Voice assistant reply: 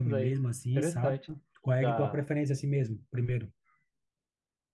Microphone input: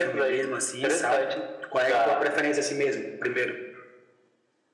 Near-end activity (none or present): none